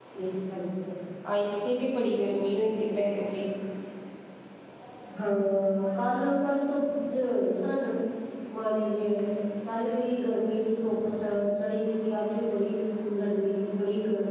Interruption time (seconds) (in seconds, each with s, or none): none